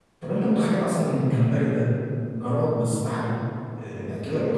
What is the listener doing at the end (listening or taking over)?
listening